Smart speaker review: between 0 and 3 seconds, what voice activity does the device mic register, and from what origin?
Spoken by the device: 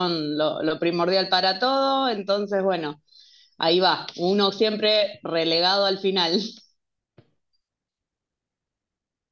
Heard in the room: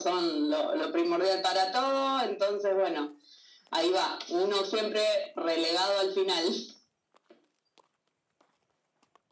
echo only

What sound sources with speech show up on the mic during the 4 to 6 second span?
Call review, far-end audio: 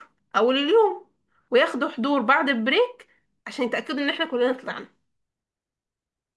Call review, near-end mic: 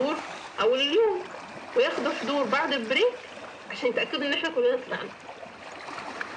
echo only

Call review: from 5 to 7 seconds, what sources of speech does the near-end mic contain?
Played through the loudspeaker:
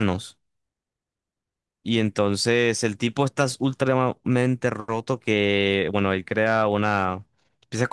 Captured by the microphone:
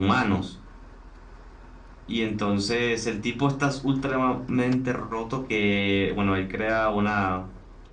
echo only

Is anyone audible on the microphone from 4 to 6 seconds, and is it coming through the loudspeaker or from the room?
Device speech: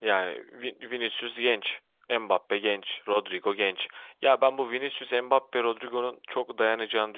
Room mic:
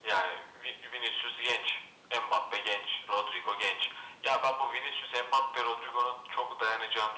echo only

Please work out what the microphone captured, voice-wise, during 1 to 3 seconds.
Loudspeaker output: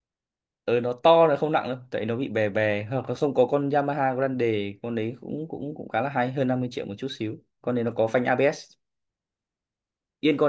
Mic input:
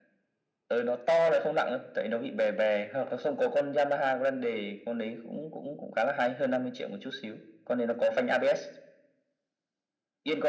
echo only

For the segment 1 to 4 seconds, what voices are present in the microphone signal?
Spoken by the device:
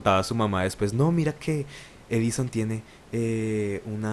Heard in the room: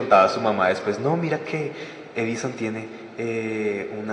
echo only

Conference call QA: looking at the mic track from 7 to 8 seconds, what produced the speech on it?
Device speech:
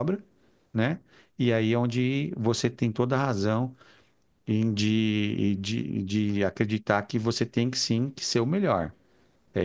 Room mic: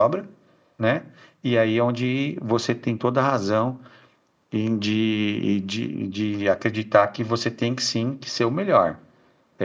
echo only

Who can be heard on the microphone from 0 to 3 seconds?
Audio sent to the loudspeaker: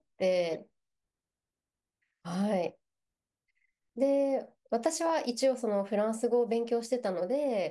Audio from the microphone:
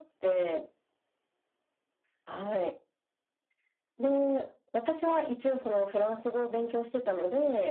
echo only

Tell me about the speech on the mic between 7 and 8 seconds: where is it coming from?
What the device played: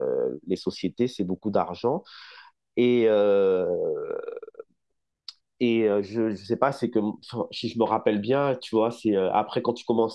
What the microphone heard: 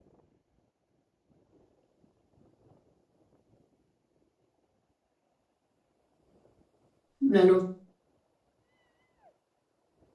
user only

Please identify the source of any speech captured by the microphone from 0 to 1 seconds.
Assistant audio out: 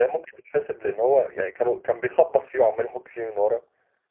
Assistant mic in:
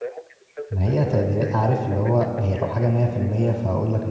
both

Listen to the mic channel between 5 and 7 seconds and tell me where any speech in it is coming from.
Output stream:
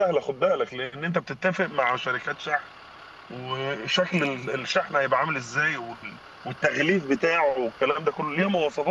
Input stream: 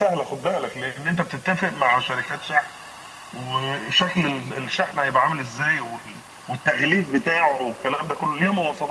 echo only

